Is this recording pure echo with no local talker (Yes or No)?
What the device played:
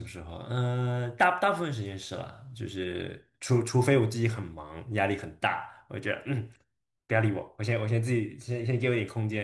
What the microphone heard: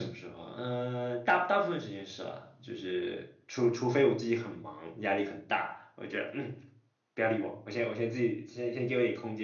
Yes